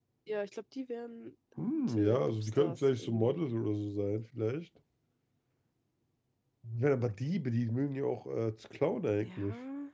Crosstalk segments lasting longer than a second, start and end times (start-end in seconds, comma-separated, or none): 1.7-3.4